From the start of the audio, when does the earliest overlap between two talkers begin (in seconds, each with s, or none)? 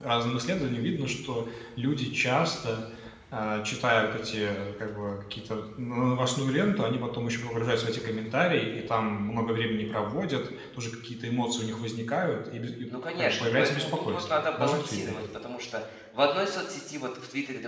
13.2 s